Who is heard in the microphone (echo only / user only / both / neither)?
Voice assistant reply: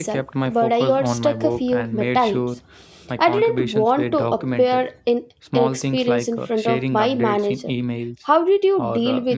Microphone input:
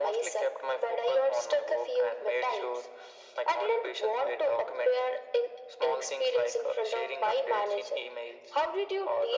echo only